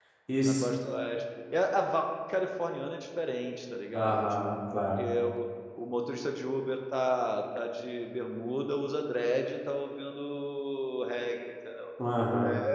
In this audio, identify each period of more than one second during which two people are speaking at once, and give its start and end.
none

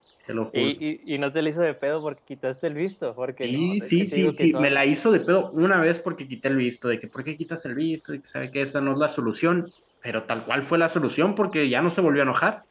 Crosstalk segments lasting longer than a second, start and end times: 3.4-4.8

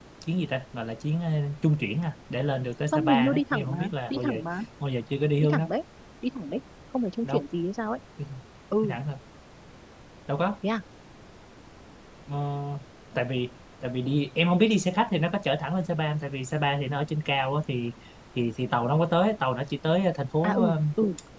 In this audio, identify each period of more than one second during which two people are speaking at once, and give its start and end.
2.9-4.3

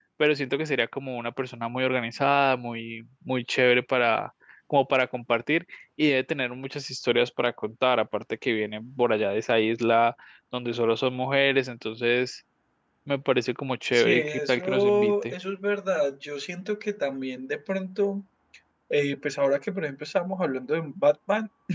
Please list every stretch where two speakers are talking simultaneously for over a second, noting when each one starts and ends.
13.9-15.3

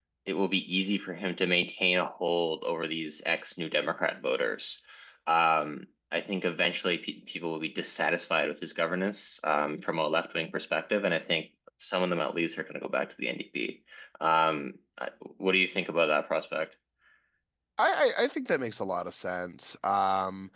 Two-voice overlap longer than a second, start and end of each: none

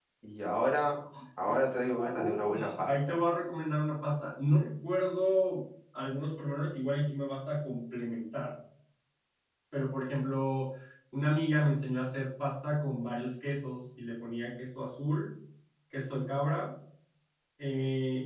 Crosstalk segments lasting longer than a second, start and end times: 1.4-3.2

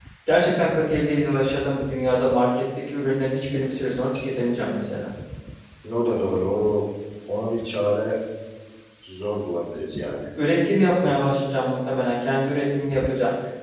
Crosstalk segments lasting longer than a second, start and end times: none

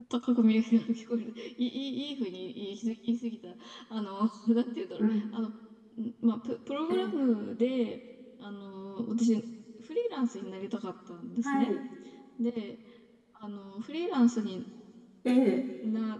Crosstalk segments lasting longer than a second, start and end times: none

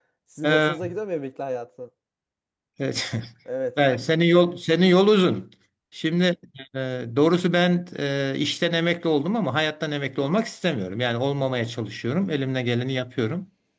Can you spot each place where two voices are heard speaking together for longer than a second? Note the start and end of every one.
none

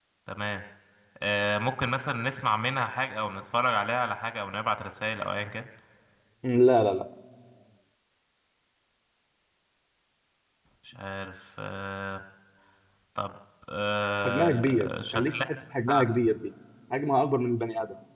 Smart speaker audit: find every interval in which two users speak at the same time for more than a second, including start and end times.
14.2-15.4

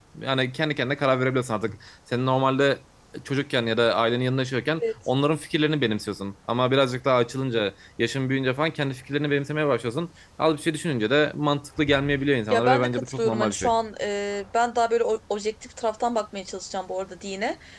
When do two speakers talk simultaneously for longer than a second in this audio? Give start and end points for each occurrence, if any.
12.5-13.7

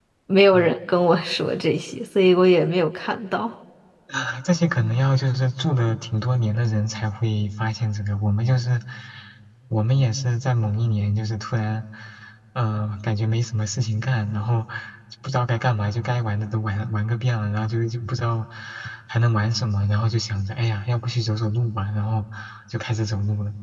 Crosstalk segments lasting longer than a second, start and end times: none

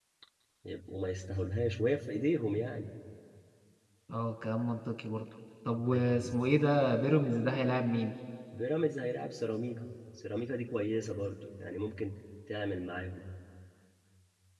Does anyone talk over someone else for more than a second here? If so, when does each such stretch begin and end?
none

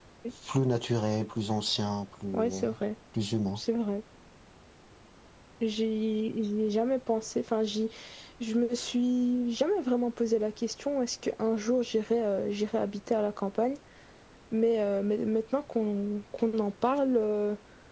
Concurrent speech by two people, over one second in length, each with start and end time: none

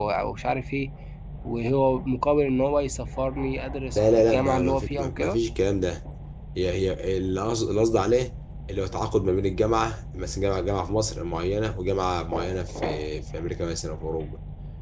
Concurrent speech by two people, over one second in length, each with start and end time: 4.0-5.4

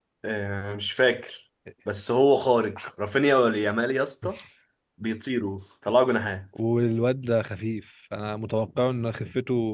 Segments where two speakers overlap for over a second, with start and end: none

